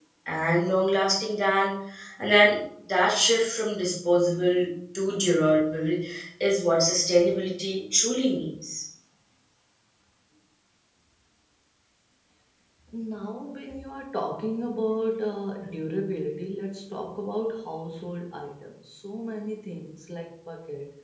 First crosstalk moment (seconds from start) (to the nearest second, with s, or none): none